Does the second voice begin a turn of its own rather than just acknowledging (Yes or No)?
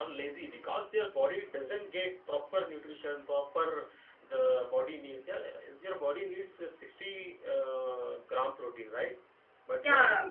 Yes